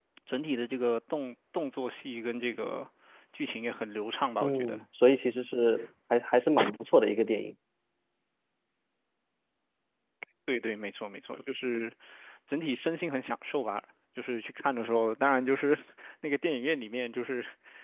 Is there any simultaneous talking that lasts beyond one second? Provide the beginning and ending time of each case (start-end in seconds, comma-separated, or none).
none